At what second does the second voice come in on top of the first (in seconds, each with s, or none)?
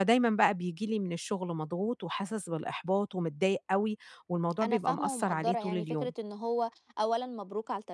4.6 s